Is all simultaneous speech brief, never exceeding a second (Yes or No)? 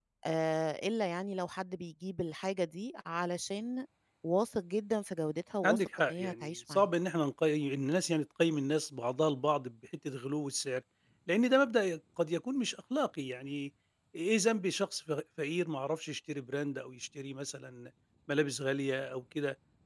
No